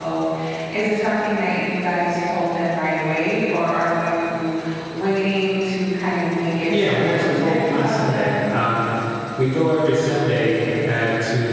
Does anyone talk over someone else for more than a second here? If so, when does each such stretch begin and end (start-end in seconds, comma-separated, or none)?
6.7-8.4